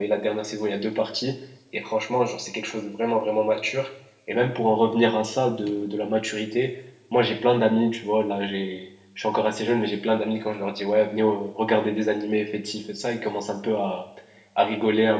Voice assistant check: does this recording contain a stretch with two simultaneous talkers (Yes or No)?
No